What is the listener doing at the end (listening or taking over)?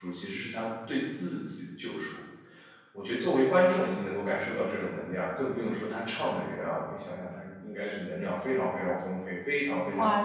taking over